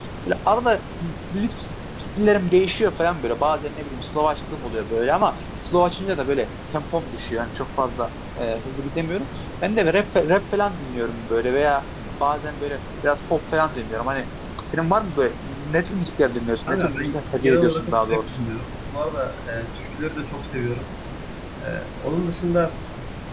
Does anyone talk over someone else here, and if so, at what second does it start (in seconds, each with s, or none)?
16.7 s